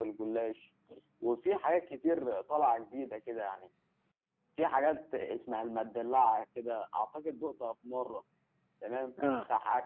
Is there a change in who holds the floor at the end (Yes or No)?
No